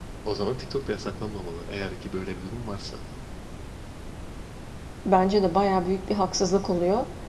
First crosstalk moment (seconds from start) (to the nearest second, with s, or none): none